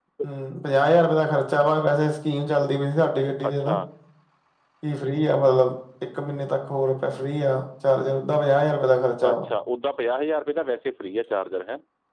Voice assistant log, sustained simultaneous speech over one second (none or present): none